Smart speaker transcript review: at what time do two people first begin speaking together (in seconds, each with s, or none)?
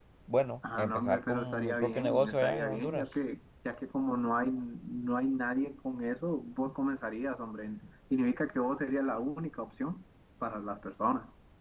0.7 s